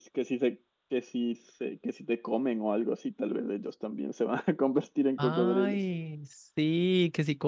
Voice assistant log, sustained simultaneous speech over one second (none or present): none